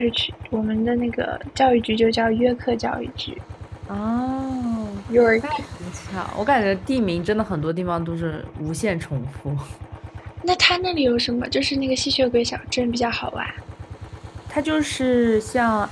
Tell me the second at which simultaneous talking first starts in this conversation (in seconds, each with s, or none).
none